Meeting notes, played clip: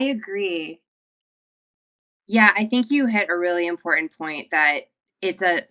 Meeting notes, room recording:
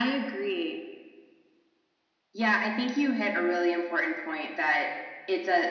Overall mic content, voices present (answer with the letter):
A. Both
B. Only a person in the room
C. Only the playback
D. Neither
C